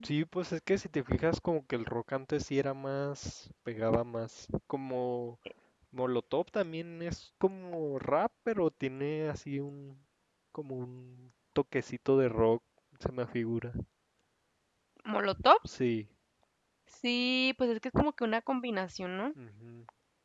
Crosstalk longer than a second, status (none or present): none